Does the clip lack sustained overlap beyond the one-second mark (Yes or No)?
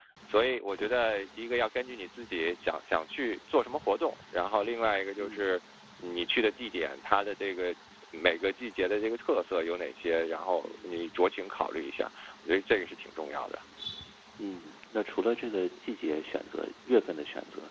Yes